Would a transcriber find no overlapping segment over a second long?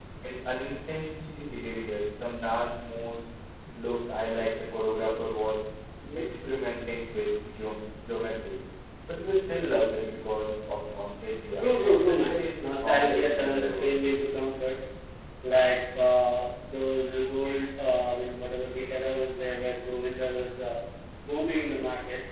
No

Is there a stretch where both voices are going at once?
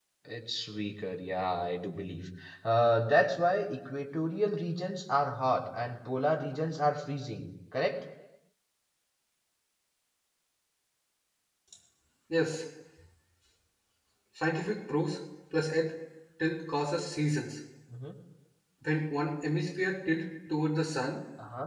No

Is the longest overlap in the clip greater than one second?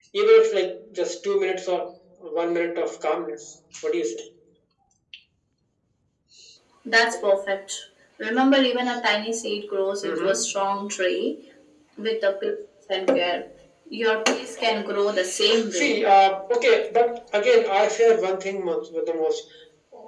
No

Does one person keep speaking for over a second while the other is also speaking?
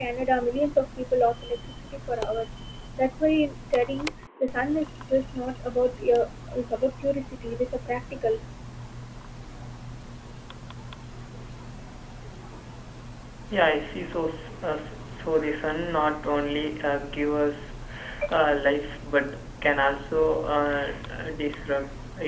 No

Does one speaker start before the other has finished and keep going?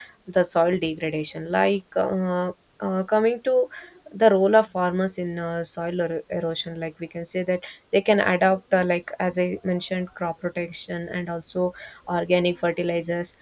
No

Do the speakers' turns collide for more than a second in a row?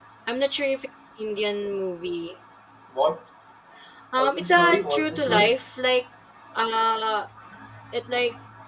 Yes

